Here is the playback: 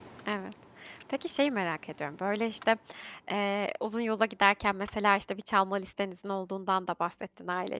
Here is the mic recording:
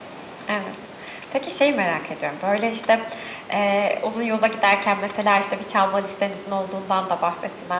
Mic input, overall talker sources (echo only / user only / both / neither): echo only